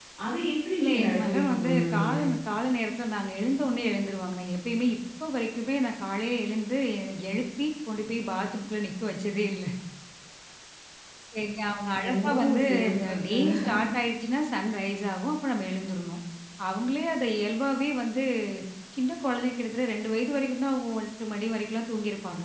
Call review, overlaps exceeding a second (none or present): present